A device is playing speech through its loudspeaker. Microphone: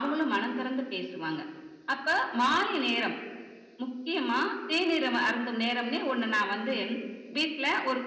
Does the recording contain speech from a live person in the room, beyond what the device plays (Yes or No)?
No